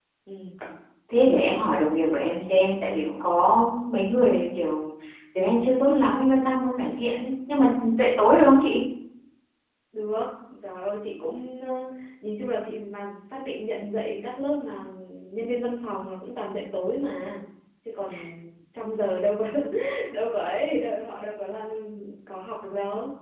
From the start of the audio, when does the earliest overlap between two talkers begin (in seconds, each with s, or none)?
none